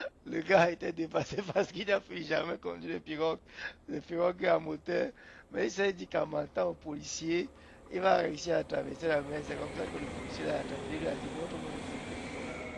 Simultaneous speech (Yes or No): No